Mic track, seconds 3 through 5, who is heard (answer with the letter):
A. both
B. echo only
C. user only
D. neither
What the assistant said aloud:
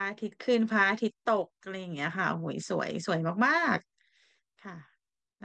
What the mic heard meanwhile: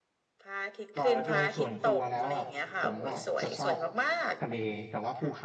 A